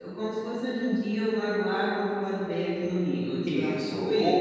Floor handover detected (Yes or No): Yes